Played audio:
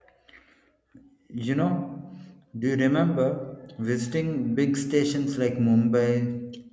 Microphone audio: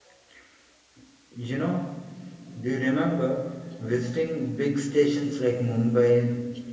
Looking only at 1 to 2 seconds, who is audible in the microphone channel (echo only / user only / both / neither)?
echo only